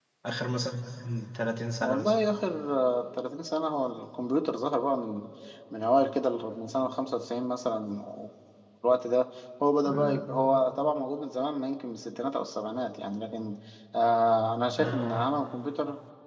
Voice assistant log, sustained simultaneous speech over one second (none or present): none